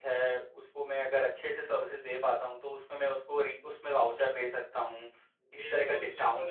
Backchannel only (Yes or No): No